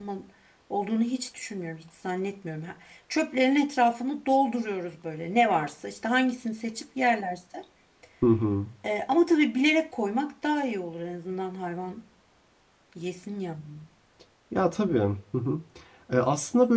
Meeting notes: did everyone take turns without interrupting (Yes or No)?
Yes